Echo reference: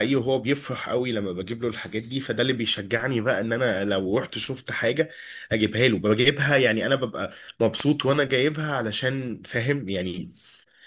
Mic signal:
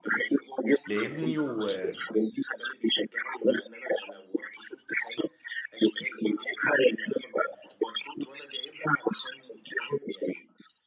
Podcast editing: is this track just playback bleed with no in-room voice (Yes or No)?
No